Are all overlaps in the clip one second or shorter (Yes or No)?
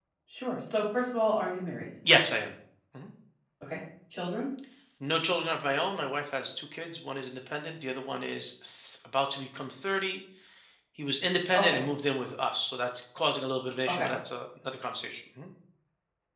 Yes